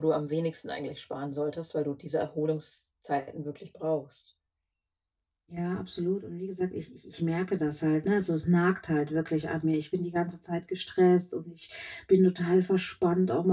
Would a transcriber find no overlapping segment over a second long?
Yes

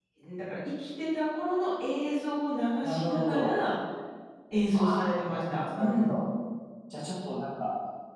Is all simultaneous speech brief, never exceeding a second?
No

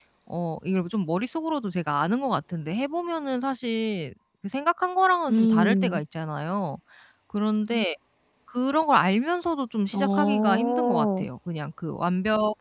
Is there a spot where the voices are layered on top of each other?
Yes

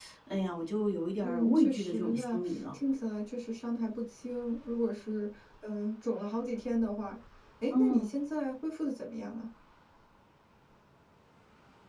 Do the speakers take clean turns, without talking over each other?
No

